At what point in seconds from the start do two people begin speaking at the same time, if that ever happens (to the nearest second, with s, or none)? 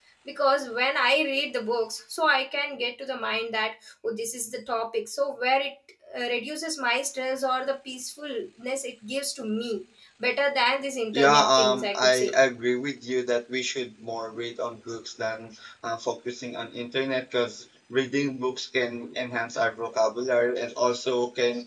11 s